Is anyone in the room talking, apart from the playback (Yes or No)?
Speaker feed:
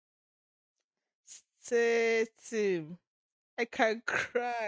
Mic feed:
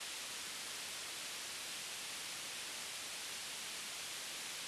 No